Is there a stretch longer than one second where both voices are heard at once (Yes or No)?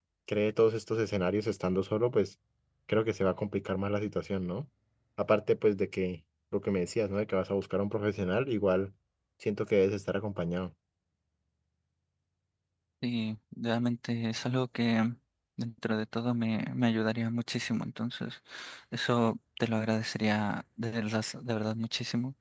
No